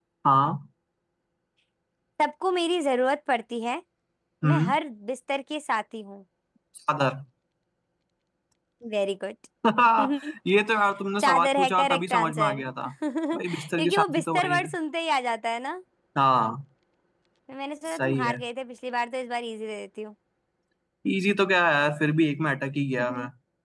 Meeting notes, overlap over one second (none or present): present